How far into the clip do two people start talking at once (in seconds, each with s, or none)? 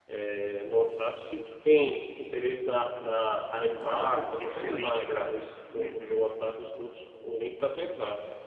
3.8 s